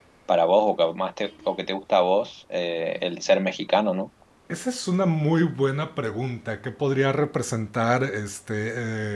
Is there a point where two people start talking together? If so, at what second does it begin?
none

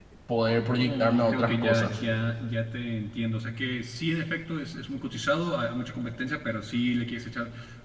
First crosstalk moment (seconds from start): 0.6 s

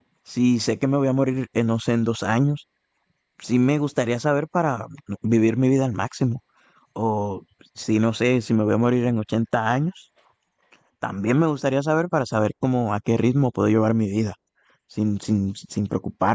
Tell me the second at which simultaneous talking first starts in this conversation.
none

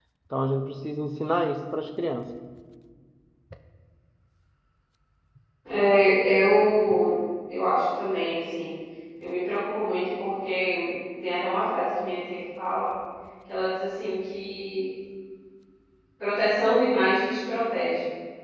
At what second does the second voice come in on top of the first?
none

